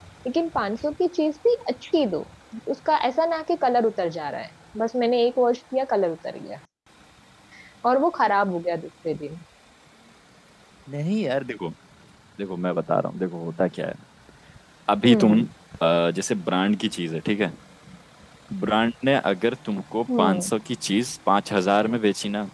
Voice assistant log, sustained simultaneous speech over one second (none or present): none